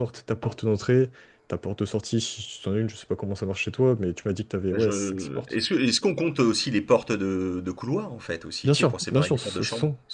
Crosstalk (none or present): present